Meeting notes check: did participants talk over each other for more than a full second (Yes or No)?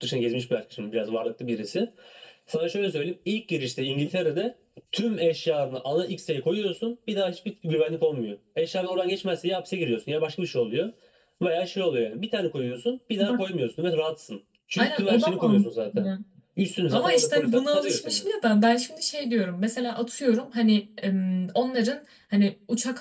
Yes